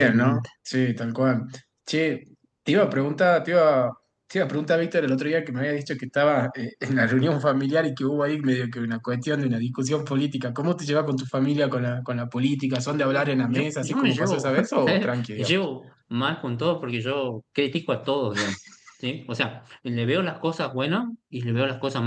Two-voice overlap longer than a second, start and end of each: 12.9-15.6

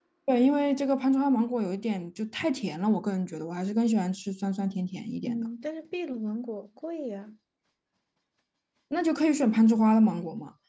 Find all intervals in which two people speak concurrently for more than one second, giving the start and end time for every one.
none

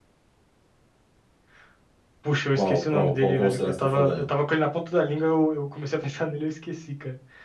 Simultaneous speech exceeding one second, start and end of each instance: 2.5-4.2

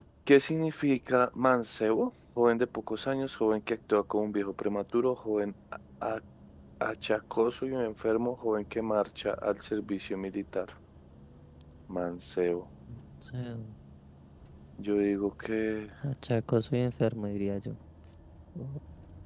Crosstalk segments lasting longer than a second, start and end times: none

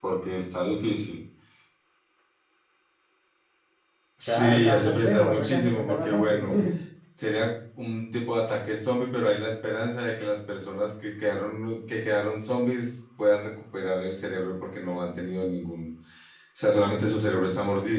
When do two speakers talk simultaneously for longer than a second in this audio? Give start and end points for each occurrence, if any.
4.3-6.4

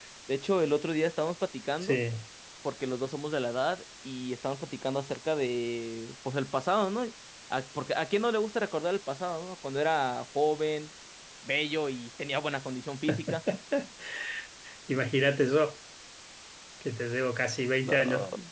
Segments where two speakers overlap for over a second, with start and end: none

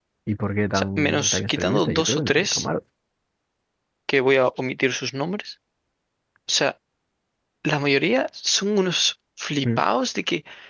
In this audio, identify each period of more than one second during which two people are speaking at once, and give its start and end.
0.7-2.6

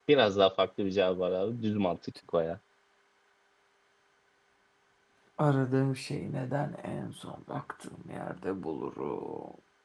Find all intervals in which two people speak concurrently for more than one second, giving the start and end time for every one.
none

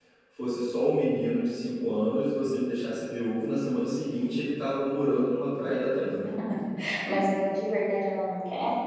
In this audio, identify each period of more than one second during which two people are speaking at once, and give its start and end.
none

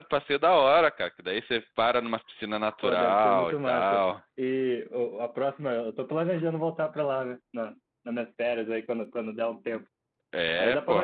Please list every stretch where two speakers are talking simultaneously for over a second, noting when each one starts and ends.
2.8-4.0

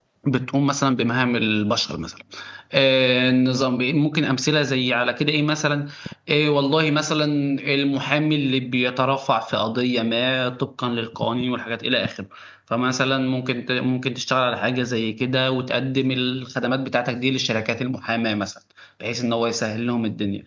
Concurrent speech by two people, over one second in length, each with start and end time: none

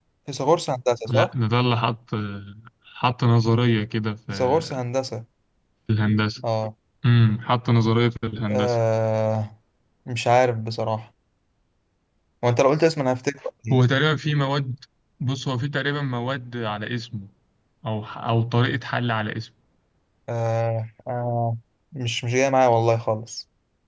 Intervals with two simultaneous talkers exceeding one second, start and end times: none

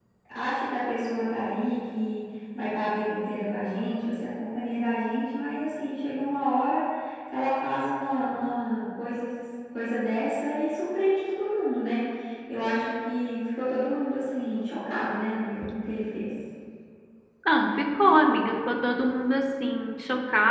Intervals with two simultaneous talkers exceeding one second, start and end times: none

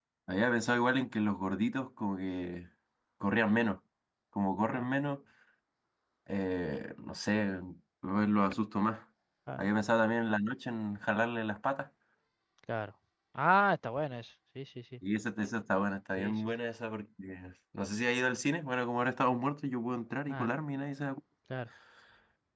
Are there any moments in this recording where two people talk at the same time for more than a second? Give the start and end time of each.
none

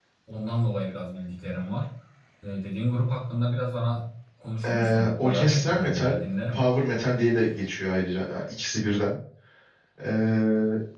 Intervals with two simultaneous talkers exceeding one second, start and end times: 4.7-6.1

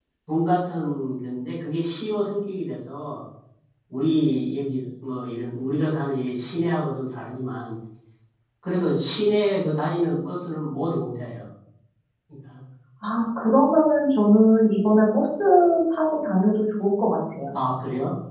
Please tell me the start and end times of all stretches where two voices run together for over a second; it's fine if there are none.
none

